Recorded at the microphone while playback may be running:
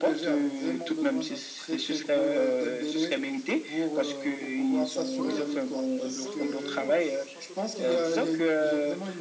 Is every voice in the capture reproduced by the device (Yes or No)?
No